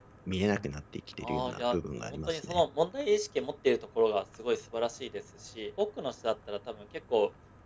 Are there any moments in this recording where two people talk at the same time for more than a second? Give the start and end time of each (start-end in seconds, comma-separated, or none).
1.2-2.6